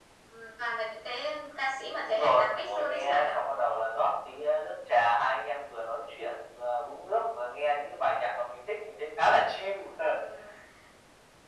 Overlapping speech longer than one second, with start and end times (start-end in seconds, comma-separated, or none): 2.1-3.4